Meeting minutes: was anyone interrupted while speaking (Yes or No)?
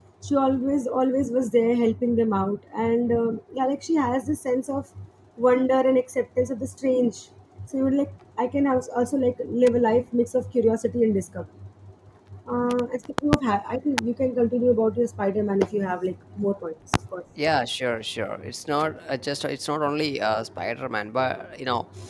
No